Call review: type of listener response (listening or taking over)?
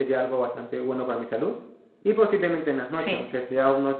listening